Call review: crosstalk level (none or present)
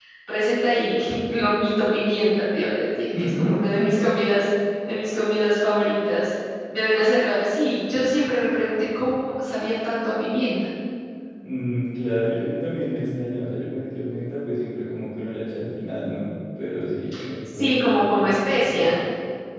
present